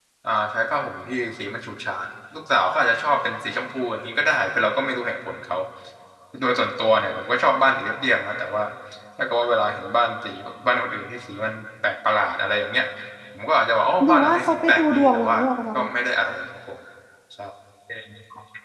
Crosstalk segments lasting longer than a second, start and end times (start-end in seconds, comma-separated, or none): 14.0-15.4